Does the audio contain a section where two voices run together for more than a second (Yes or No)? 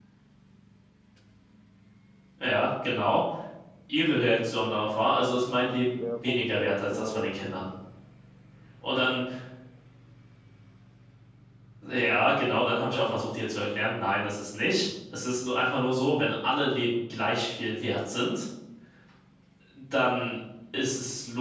Yes